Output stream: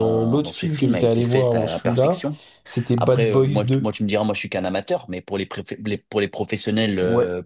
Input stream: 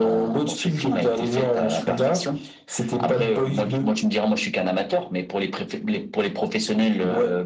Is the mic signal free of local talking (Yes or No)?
Yes